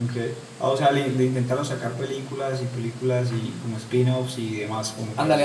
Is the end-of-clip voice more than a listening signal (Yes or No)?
Yes